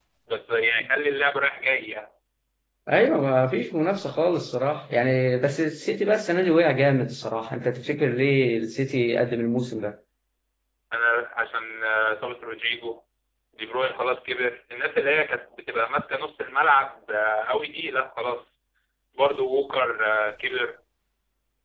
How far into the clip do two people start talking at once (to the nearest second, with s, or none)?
none